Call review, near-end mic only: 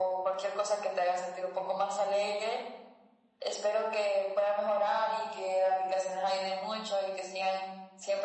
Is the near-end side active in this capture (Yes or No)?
No